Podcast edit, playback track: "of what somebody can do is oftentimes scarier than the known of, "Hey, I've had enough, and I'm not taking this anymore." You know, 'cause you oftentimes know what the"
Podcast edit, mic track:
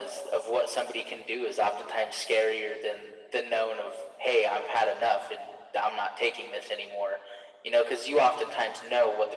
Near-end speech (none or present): none